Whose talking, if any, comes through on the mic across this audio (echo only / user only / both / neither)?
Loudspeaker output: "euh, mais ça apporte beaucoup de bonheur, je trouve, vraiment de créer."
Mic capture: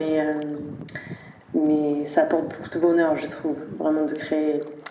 echo only